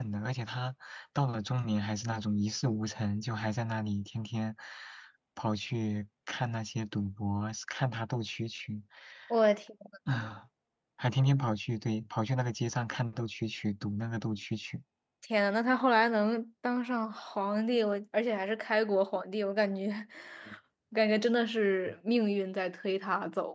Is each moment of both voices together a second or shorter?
Yes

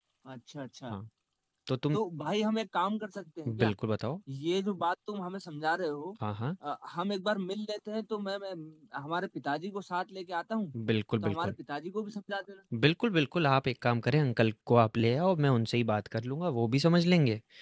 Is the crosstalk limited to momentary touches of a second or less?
Yes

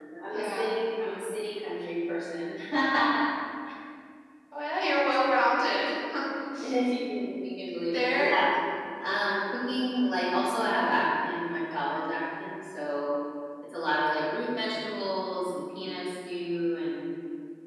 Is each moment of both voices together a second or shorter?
Yes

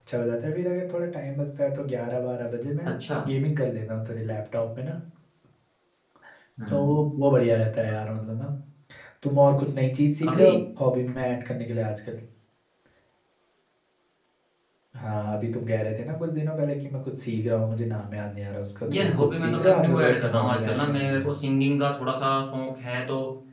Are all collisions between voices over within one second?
No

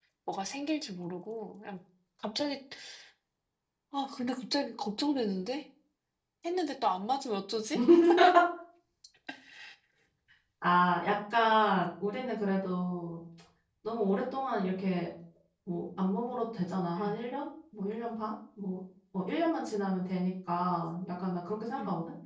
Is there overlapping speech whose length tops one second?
No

